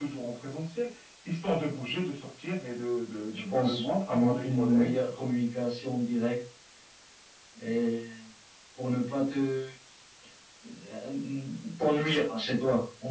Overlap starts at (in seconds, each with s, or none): 3.5 s